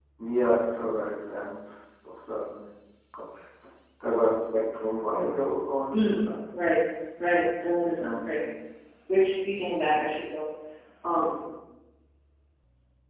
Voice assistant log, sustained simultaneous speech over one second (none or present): none